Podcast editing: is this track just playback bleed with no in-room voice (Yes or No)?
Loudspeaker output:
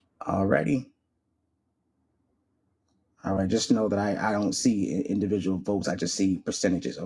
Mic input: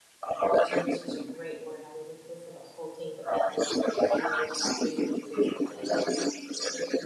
No